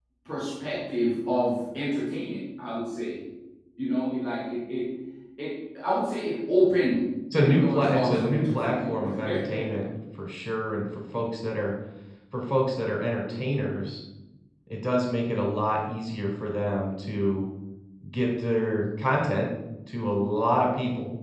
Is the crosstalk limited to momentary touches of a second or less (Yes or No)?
No